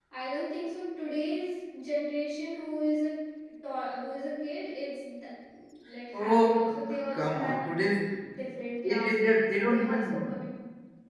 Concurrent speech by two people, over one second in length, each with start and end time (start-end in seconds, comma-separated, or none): 6.1-7.6, 8.8-10.3